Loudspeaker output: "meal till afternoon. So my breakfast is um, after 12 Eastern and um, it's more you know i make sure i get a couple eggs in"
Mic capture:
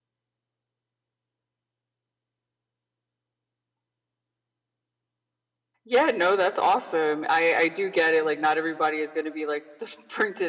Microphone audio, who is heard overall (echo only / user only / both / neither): user only